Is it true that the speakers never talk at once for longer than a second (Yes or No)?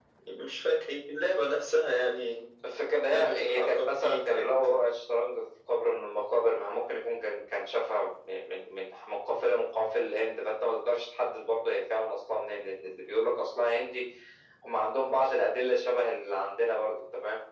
No